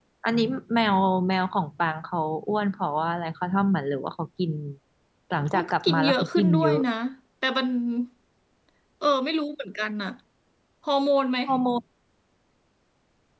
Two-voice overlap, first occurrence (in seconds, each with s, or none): 5.5 s